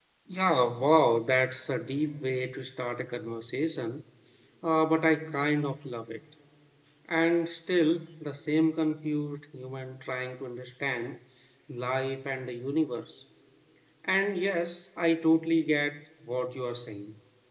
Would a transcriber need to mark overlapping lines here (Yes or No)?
No